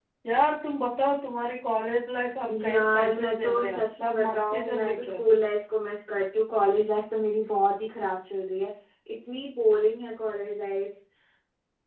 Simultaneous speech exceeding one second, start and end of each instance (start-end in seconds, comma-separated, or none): 2.6-5.2